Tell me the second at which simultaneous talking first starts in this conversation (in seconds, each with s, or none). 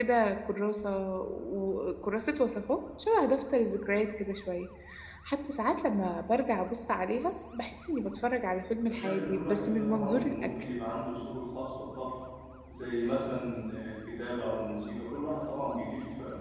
8.8 s